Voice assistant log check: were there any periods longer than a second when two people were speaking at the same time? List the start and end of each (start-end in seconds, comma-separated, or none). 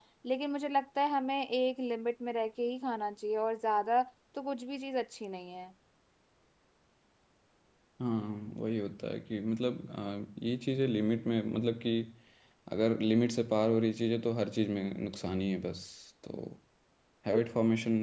none